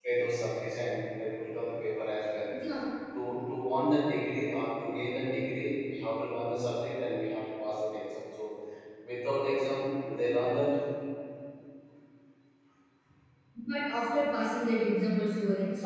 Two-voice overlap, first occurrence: none

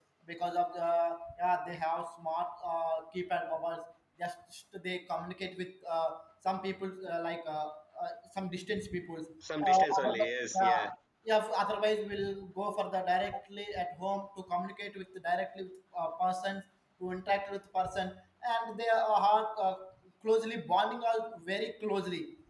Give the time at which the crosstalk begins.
9.4 s

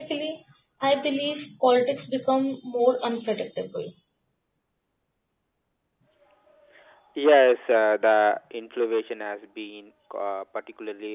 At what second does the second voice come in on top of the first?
none

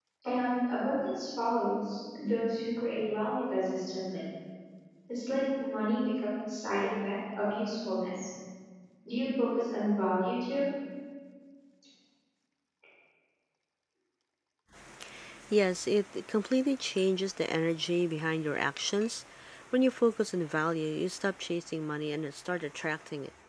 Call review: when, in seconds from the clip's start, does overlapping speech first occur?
none

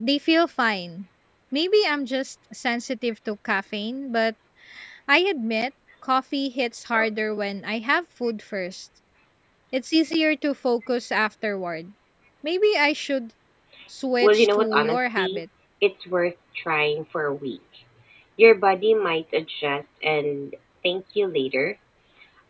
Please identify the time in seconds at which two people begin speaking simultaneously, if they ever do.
14.2 s

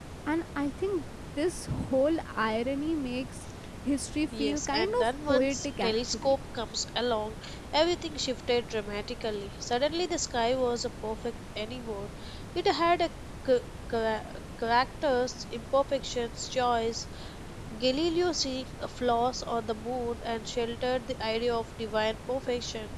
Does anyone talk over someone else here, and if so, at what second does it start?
4.3 s

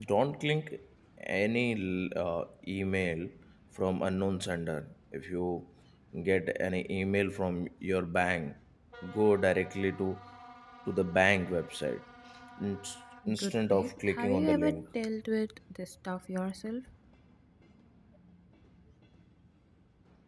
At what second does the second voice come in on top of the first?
13.3 s

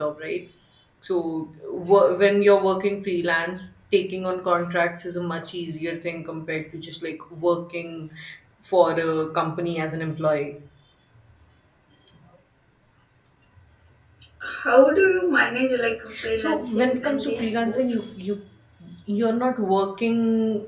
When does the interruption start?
16.4 s

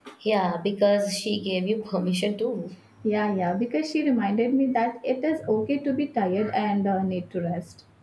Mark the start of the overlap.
none

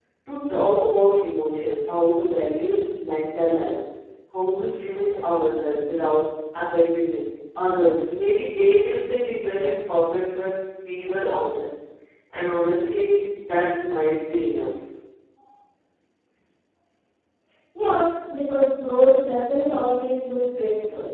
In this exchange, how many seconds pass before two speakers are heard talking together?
none

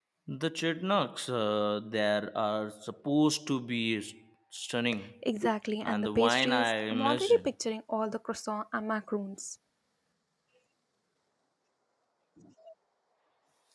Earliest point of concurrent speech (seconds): 5.8 s

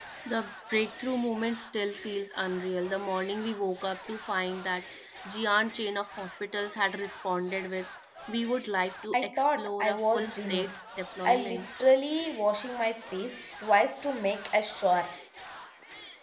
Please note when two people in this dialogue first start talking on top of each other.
9.1 s

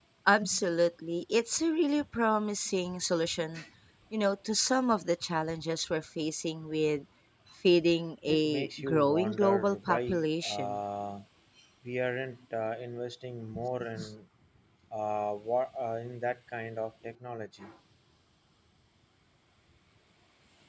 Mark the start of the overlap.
8.3 s

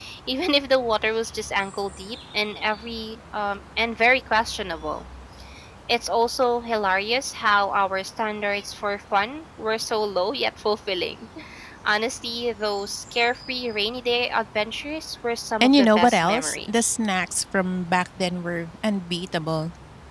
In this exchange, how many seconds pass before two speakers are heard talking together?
15.6 s

